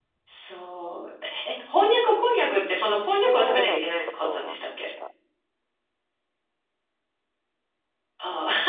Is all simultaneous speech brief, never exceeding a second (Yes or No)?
No